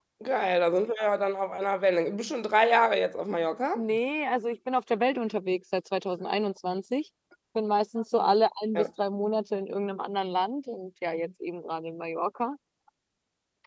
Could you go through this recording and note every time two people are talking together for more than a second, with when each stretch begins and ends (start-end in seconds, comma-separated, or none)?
none